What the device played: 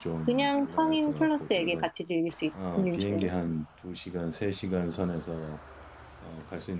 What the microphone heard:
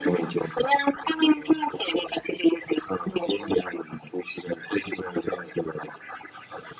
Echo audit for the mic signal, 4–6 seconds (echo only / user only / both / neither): echo only